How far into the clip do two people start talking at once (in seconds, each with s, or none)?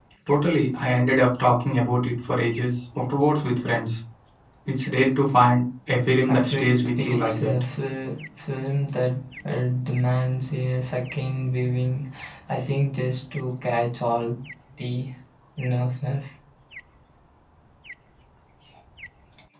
6.2 s